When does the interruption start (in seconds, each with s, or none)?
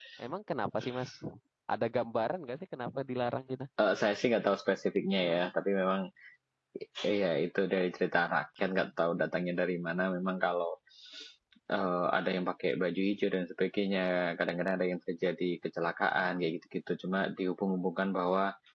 none